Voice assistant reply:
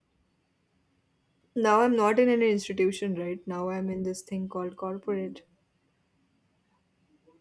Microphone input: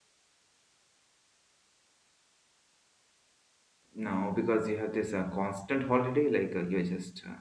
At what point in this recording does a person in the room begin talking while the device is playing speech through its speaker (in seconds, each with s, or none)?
3.9 s